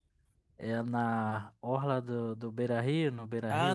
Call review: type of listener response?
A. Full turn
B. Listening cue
A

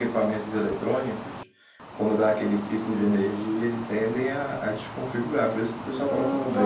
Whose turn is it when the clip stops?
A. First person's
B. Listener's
B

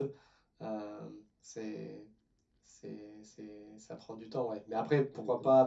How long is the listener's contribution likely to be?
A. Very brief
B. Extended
A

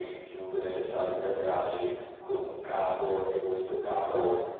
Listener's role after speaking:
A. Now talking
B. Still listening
B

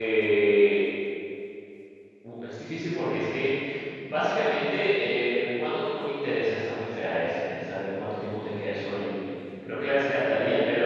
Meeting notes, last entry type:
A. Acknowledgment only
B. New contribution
A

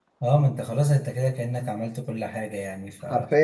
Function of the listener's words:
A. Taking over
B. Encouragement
A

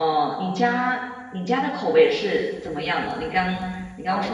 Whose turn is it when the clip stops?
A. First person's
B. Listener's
B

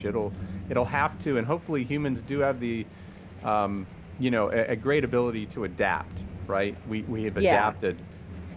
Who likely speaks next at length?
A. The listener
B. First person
B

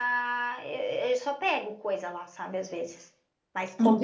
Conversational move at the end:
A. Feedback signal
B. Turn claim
B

